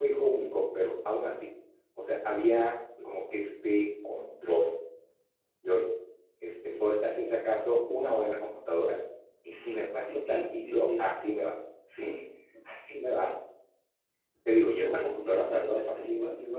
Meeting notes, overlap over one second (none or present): present